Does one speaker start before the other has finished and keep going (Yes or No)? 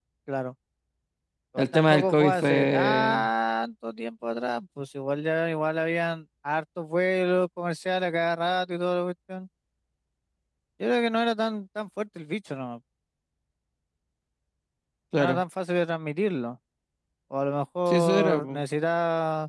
Yes